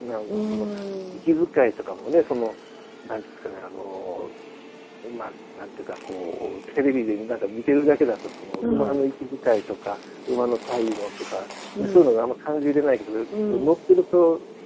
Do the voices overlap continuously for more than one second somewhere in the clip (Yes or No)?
No